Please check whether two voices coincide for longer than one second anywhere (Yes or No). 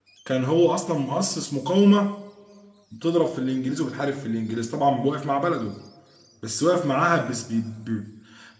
No